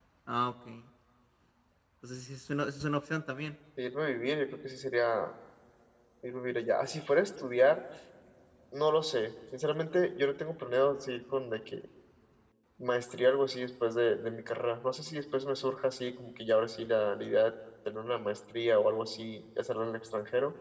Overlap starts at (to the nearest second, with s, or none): none